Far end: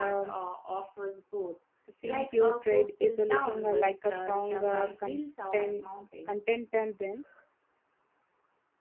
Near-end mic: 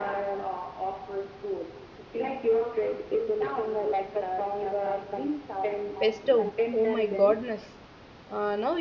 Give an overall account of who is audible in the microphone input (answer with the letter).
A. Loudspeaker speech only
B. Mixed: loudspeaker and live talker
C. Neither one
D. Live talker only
B